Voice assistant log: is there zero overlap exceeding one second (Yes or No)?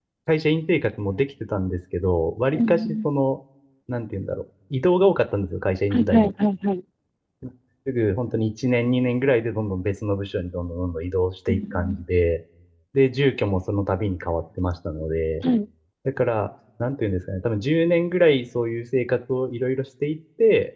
Yes